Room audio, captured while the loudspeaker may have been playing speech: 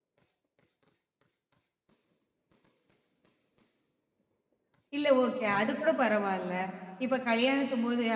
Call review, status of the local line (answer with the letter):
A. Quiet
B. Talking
B